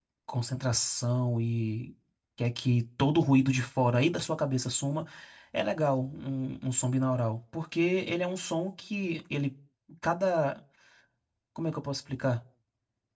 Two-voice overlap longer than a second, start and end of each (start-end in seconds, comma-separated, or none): none